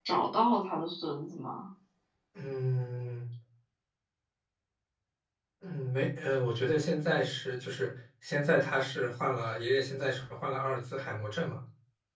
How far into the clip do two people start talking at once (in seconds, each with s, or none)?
none